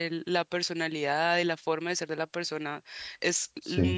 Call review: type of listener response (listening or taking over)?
listening